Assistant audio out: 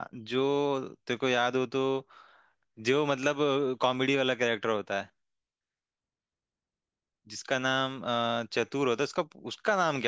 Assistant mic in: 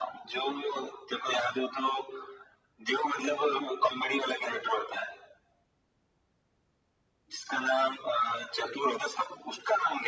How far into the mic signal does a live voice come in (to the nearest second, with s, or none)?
none